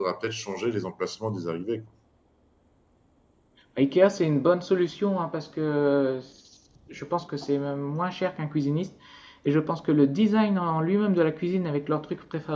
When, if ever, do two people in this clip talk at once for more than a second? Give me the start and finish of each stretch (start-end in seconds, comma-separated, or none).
none